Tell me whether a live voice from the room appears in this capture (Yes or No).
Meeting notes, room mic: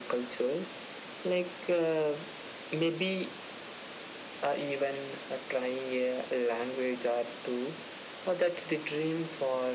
No